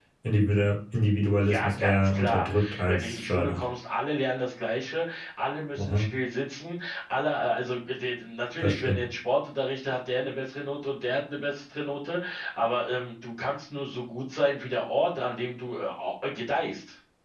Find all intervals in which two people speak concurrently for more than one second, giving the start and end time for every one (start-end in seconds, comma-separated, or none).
1.4-3.6